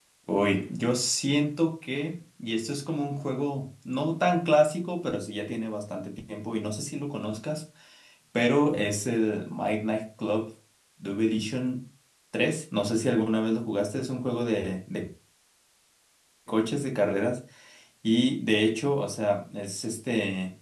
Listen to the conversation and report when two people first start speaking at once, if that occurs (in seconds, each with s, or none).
none